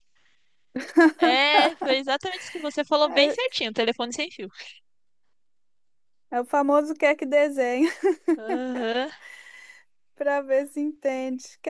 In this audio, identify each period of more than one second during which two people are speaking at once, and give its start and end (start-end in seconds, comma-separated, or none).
none